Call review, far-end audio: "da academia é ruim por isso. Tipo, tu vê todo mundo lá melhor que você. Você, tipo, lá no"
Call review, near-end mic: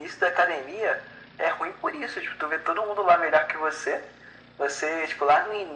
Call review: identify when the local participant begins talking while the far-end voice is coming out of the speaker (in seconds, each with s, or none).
none